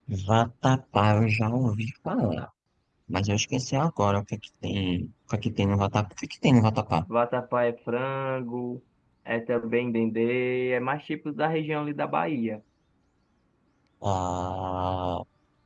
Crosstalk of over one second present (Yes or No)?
No